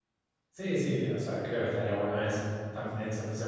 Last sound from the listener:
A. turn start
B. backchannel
B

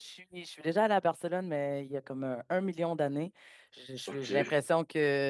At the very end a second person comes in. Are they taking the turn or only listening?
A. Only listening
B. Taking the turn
A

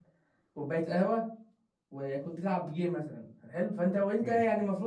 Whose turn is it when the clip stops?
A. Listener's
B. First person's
B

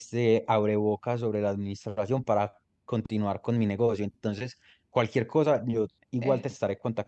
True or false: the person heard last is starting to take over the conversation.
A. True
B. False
B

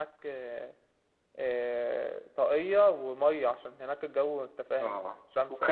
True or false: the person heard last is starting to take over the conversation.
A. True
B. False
A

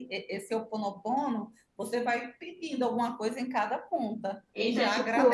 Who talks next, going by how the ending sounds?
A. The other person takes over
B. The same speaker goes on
A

